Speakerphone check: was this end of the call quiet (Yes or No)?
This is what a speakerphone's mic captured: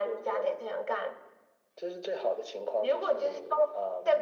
Yes